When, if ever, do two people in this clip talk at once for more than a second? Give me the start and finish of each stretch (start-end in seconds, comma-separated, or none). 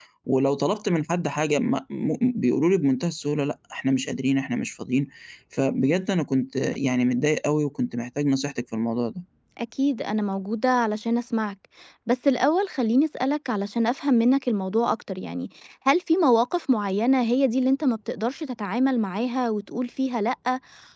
none